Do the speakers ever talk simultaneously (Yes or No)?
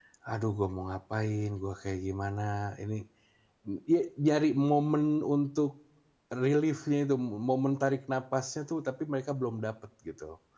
No